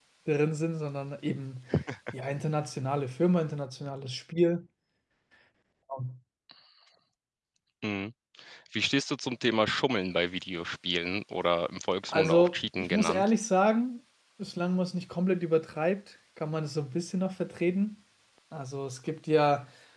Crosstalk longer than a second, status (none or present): present